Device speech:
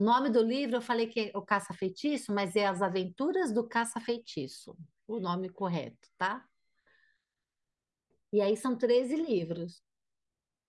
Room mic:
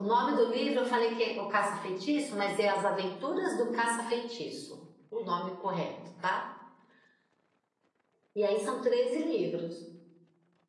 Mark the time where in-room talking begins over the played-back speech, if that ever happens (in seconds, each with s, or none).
none